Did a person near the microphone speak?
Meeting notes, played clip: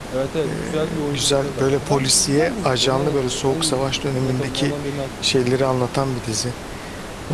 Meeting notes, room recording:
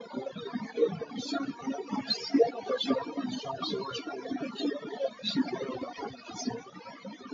No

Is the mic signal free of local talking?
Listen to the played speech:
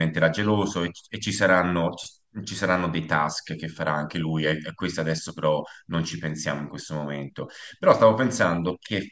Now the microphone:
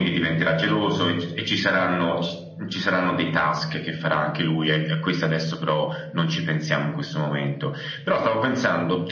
Yes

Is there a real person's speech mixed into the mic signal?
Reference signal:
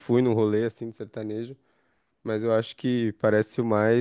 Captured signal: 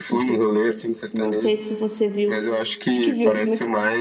Yes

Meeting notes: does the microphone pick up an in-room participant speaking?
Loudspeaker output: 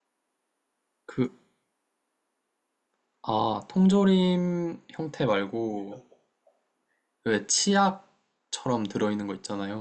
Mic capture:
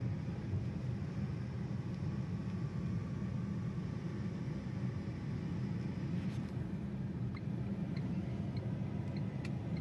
No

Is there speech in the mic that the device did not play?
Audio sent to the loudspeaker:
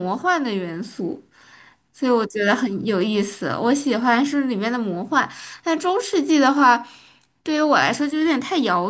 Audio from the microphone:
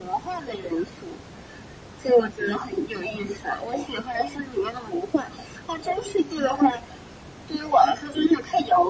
No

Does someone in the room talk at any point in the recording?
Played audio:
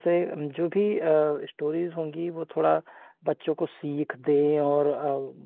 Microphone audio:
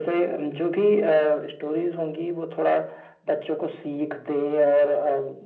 No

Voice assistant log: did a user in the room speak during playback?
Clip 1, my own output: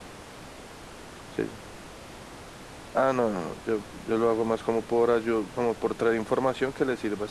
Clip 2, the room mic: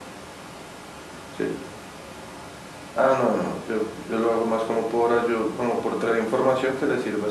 No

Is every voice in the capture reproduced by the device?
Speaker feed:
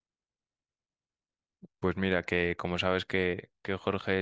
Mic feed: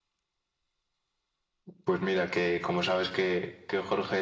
Yes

